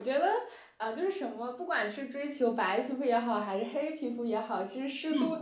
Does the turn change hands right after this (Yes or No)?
No